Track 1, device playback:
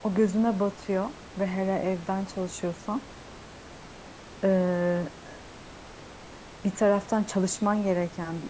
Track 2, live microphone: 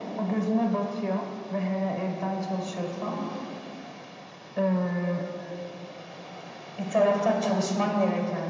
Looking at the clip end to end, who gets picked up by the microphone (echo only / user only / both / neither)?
echo only